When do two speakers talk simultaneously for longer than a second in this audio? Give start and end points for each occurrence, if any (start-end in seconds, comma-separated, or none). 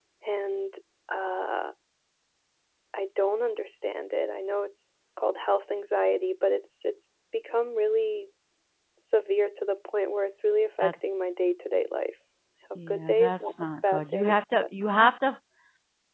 12.9-14.7